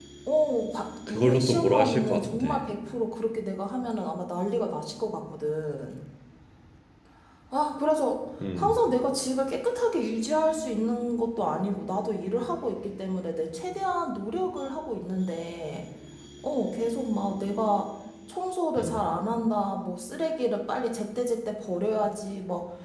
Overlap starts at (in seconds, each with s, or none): 1.1 s